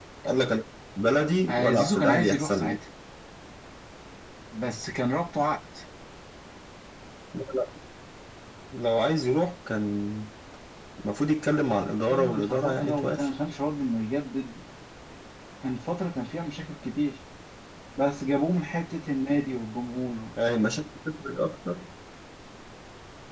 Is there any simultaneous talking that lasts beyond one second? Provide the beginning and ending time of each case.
1.5-2.8, 11.9-13.3

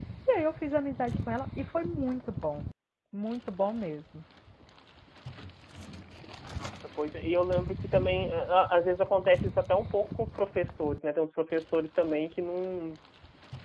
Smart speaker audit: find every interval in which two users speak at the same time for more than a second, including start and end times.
none

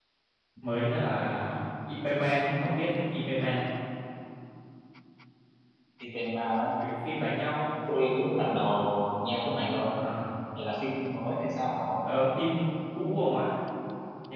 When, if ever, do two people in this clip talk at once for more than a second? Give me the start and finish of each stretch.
none

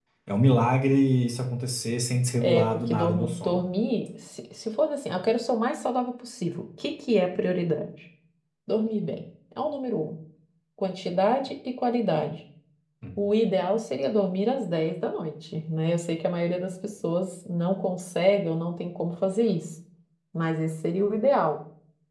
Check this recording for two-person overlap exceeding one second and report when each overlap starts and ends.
2.4-3.6

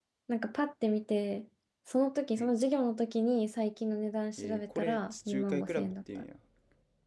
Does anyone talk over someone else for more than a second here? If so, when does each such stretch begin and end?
4.4-6.2

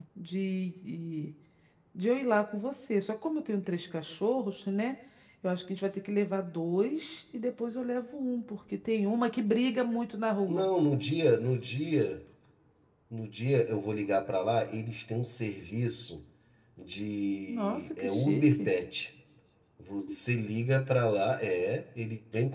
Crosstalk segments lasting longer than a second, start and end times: 17.5-18.7

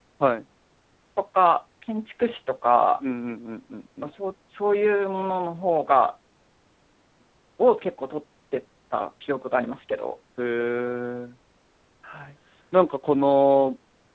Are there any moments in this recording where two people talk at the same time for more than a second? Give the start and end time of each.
none

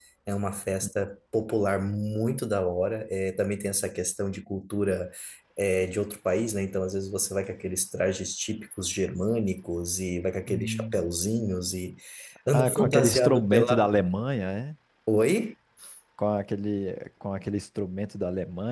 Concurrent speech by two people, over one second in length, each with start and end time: 12.5-13.9

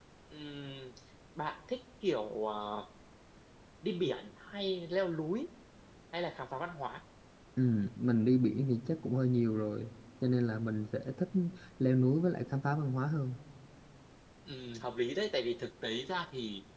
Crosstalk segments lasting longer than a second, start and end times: none

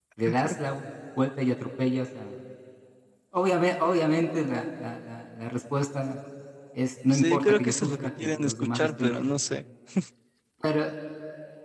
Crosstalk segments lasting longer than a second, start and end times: 7.1-9.3

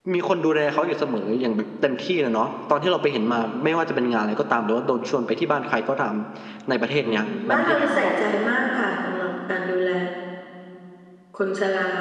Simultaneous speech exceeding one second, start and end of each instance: 7.0-8.2

